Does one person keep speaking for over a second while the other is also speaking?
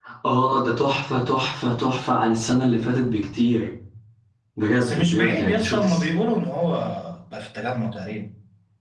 Yes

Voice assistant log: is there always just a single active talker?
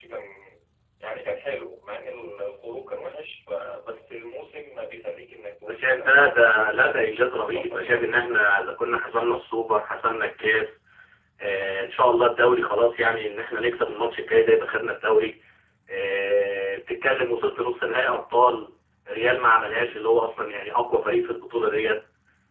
No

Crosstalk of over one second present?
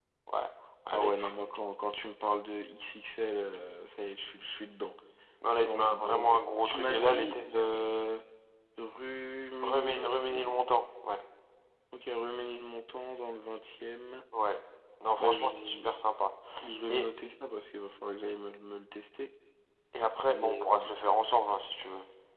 Yes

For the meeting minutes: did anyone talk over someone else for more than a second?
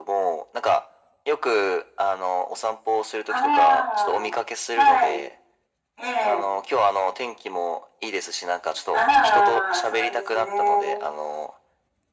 Yes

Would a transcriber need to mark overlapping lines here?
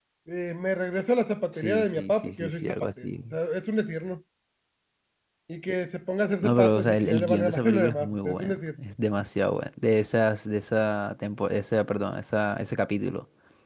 Yes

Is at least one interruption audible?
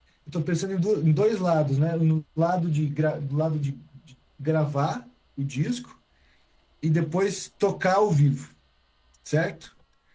No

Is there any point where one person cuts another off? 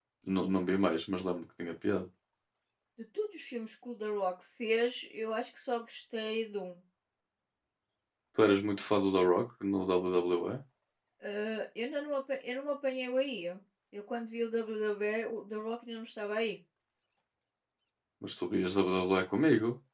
No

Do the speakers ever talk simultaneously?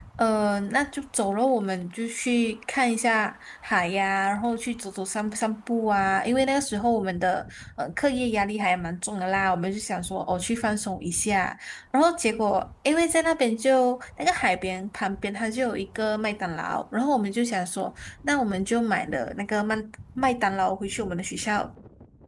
No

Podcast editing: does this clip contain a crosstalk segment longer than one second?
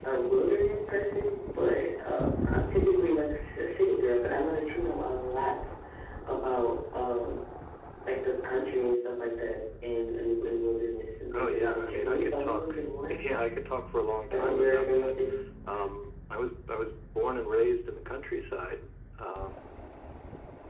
Yes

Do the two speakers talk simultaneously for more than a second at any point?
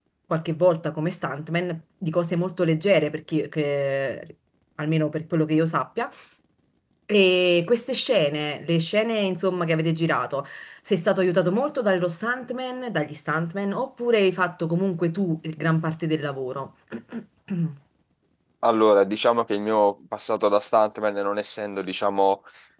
No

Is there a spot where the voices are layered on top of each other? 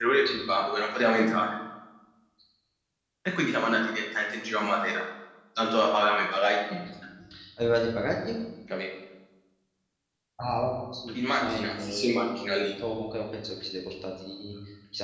Yes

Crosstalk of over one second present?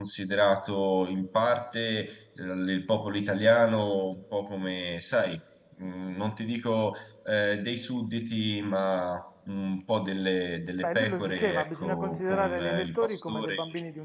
Yes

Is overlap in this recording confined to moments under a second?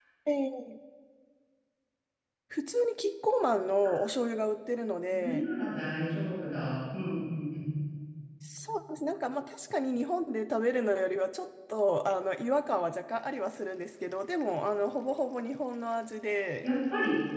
Yes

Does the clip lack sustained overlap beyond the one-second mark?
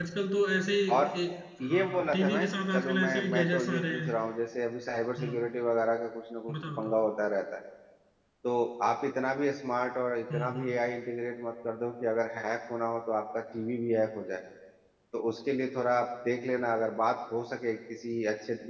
No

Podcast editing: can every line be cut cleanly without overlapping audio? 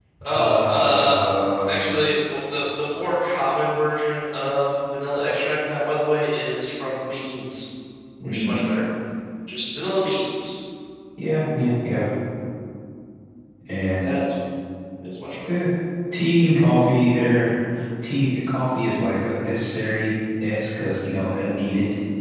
No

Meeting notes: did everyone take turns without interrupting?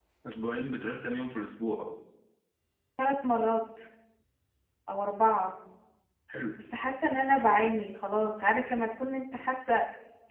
Yes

